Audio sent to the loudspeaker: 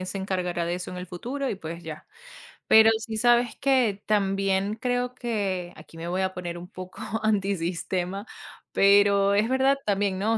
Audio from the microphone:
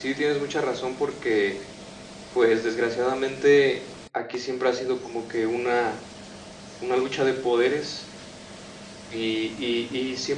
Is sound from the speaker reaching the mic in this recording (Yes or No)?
No